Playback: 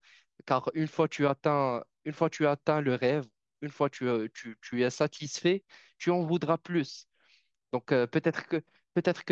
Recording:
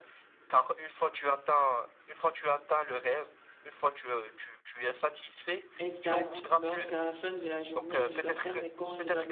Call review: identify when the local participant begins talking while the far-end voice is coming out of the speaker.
5.8 s

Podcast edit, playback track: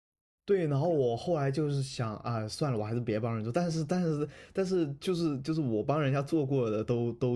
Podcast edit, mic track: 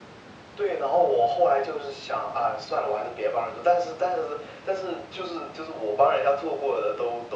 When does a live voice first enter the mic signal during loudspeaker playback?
none

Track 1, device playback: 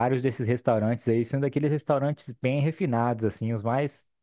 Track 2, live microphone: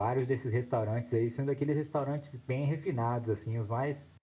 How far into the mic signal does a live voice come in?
none

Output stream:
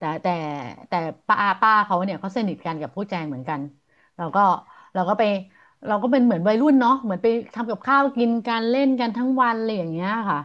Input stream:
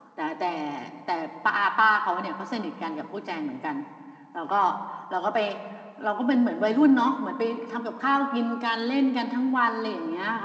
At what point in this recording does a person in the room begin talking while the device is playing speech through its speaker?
none

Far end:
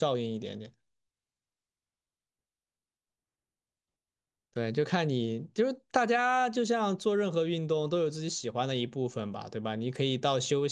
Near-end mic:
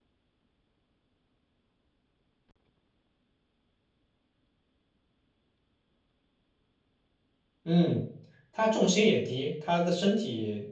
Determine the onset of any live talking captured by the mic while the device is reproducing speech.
7.6 s

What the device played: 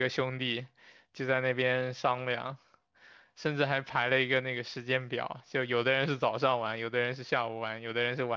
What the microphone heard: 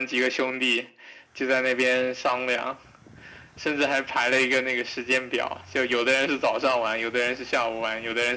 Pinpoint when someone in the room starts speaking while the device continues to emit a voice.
none

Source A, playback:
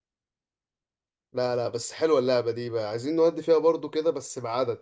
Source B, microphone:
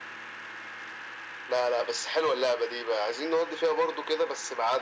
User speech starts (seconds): none

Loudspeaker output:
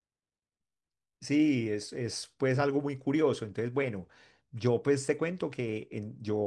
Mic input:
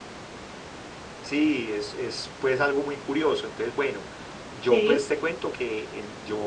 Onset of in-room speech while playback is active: 4.7 s

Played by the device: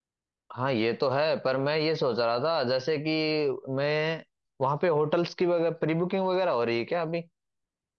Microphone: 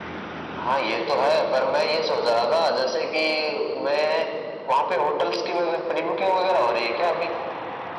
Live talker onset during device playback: none

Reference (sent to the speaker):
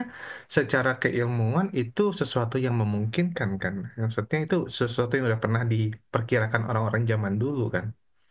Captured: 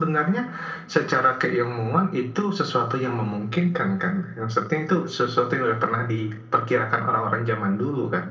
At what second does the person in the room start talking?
none

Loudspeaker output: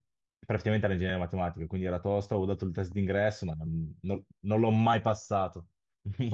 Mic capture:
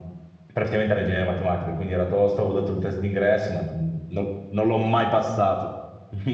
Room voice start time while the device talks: none

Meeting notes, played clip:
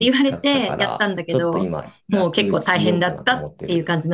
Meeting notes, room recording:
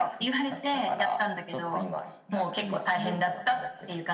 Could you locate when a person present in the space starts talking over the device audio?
none

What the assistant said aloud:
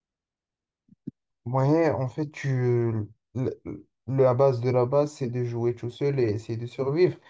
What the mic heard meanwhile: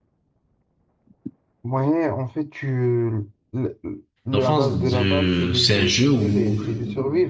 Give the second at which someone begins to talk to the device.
4.3 s

